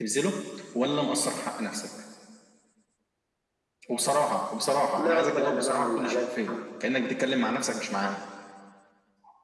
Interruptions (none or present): present